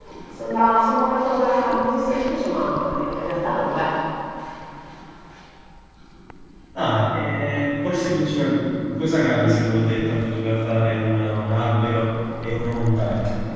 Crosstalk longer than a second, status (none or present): none